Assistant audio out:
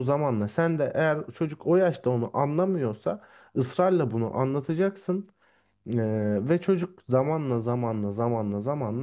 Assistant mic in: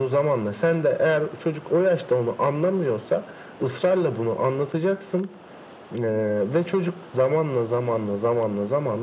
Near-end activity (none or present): none